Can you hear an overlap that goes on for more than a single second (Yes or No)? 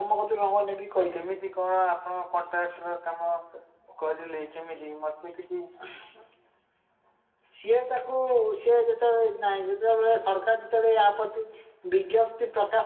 No